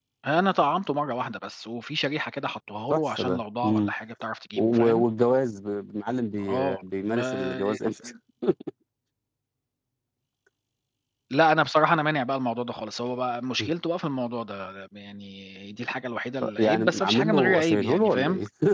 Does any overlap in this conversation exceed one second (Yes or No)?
Yes